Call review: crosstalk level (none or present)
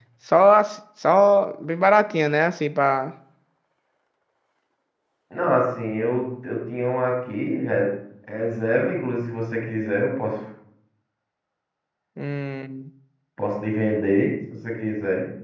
none